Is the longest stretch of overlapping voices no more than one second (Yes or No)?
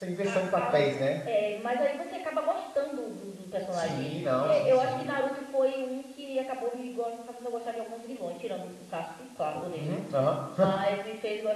No